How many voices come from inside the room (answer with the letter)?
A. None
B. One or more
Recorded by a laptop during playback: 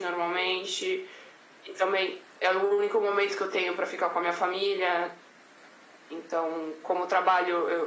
A